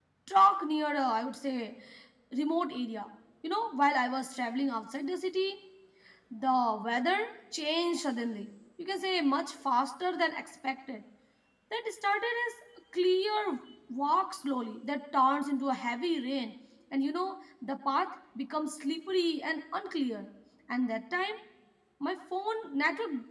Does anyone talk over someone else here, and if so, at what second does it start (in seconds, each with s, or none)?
none